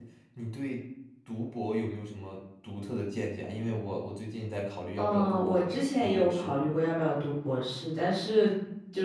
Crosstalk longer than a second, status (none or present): present